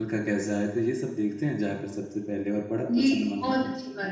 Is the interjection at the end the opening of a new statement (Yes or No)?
Yes